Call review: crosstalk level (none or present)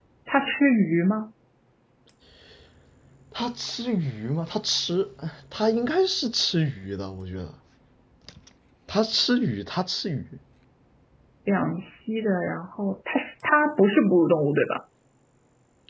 none